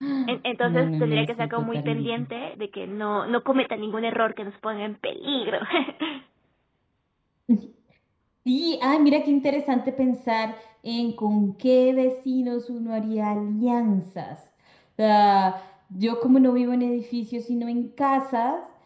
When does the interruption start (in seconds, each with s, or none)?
0.6 s